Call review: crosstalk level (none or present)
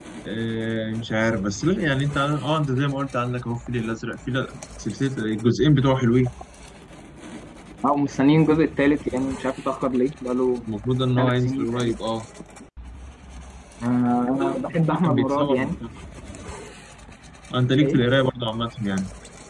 present